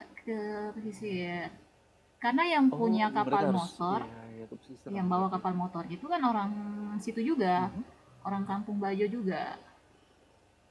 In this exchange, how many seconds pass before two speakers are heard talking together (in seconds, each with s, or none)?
2.7 s